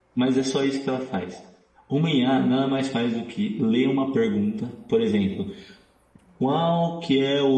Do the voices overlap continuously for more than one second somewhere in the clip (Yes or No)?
No